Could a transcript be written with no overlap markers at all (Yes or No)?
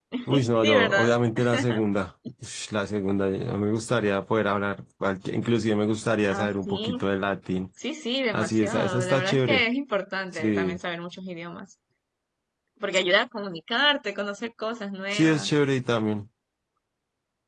No